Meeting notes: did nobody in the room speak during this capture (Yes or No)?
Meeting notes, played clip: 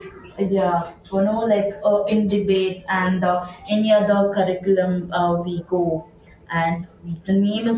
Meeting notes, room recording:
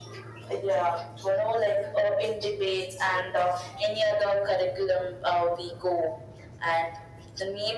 Yes